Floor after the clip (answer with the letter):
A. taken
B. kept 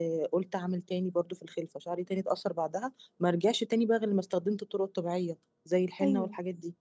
A